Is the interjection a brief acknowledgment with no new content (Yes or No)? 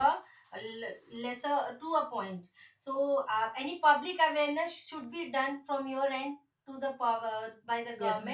No